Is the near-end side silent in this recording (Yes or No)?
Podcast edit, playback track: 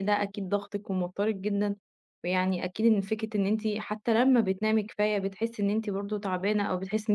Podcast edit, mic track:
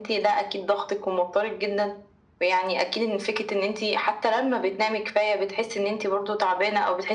Yes